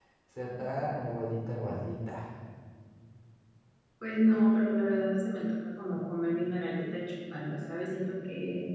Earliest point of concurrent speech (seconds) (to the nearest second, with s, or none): none